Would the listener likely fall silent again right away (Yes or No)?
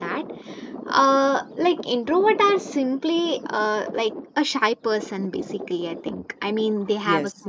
Yes